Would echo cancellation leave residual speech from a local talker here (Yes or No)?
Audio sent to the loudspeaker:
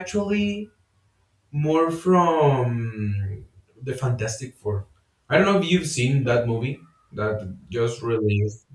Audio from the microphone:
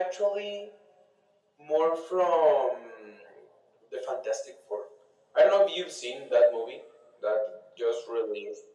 No